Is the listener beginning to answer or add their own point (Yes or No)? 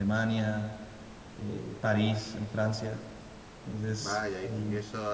Yes